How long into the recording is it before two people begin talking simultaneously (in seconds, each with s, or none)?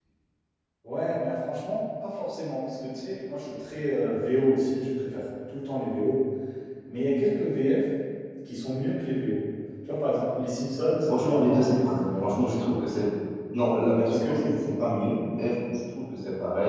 11.1 s